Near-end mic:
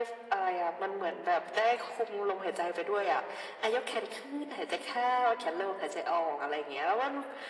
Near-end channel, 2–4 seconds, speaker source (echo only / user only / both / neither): echo only